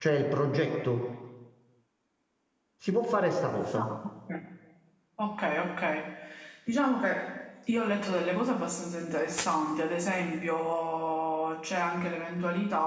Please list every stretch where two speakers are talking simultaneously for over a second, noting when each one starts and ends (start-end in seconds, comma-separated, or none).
none